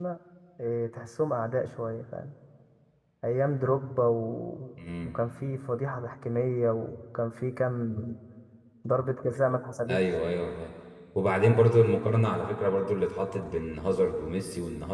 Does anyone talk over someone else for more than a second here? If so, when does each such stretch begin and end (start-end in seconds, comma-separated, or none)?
none